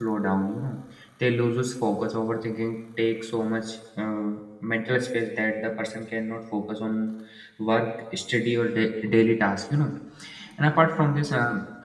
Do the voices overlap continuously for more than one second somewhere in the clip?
No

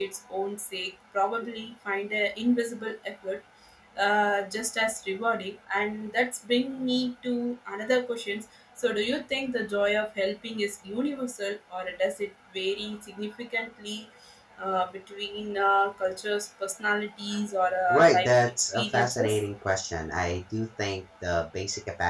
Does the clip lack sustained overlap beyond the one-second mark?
No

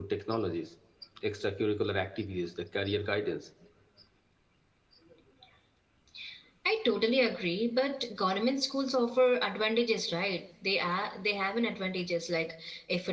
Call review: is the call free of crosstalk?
Yes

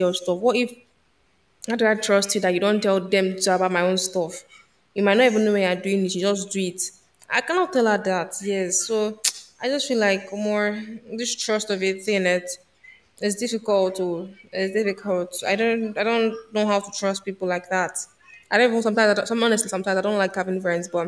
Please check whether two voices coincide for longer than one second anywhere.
No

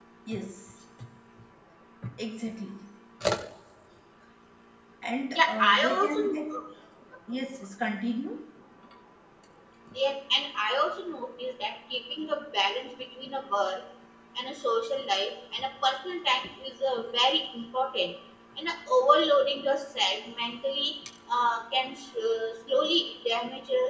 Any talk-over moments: Yes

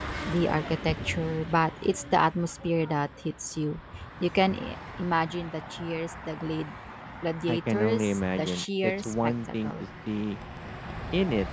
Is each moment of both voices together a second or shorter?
No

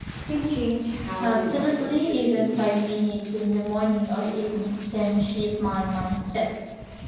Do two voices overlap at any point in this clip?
Yes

